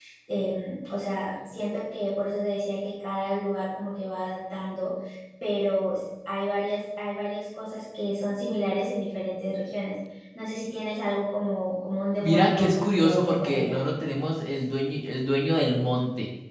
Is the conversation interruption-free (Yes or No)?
No